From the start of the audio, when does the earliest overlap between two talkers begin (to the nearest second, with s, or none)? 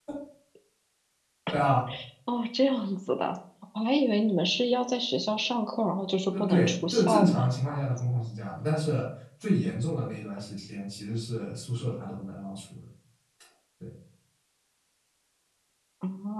6 s